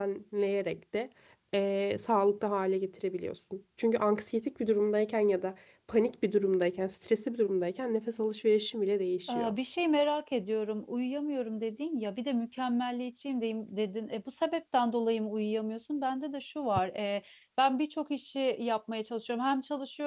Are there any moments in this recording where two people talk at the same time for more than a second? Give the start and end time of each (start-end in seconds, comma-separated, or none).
none